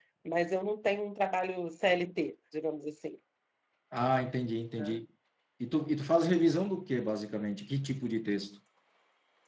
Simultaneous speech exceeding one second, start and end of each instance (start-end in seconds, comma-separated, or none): none